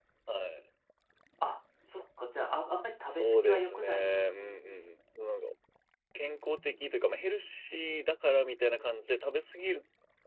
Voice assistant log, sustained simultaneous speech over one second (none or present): present